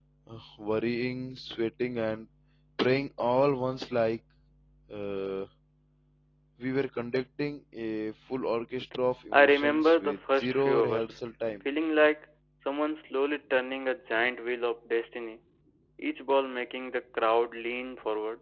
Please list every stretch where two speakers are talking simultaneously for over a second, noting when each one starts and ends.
9.3-11.2

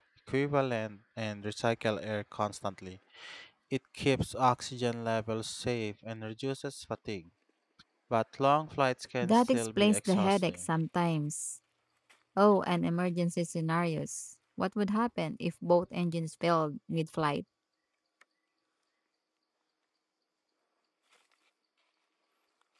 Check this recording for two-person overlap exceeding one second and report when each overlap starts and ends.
9.2-10.6

